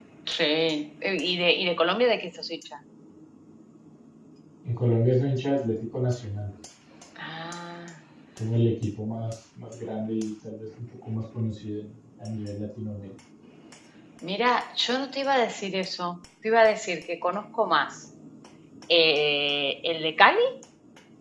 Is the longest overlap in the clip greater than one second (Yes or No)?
No